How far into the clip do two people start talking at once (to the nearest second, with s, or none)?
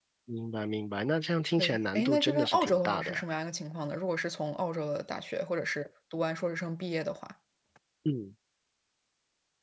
2 s